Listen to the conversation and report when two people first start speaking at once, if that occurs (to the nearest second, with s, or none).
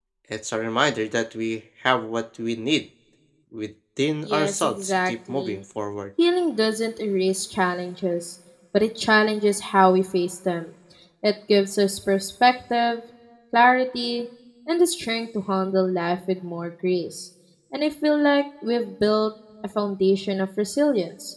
4 s